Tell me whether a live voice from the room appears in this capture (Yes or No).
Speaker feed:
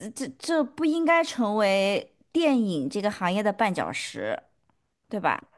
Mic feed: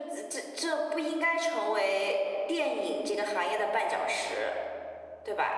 No